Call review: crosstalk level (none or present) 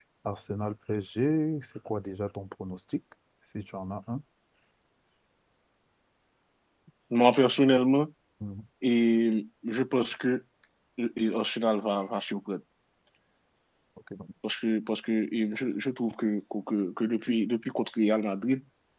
none